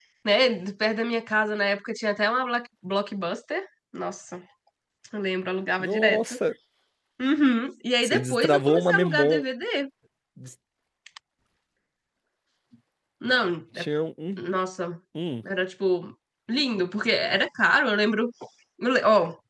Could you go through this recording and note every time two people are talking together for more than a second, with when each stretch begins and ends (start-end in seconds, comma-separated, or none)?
8.0-9.4